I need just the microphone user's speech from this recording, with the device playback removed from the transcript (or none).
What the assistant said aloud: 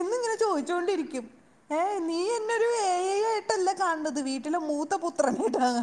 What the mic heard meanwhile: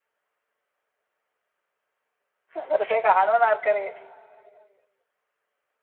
അവിടത്തെ കാണൂന്ന് ആർക്കറിയാം